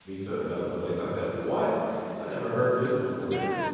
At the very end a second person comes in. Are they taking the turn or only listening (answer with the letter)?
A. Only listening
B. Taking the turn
B